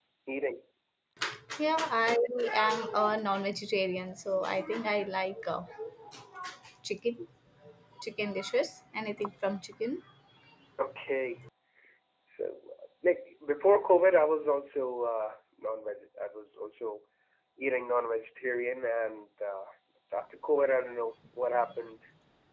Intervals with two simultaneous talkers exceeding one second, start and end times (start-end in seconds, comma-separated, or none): none